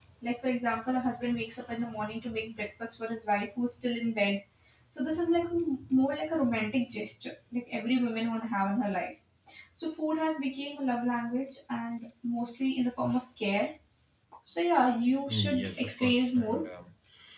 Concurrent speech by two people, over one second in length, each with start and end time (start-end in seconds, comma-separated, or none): 15.3-16.7